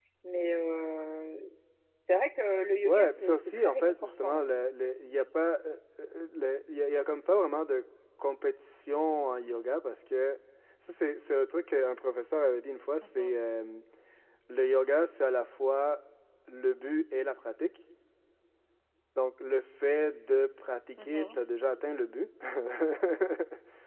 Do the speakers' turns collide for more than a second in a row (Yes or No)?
Yes